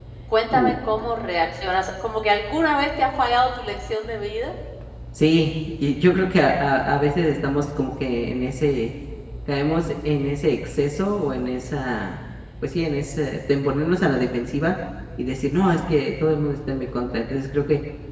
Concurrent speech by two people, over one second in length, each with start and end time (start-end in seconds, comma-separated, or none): none